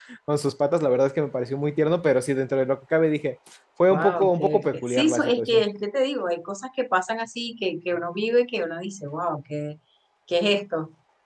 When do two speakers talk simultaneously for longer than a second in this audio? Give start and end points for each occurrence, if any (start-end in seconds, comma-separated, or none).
3.9-5.6